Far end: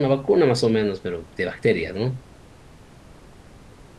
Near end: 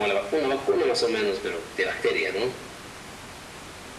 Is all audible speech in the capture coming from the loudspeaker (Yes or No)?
Yes